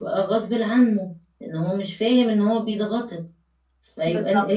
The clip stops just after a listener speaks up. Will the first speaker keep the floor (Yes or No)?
Yes